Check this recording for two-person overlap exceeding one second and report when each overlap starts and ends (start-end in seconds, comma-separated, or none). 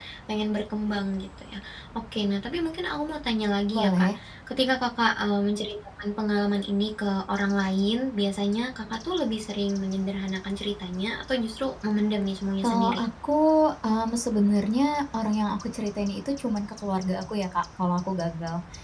none